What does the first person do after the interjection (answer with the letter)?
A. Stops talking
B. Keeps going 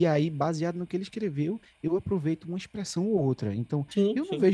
B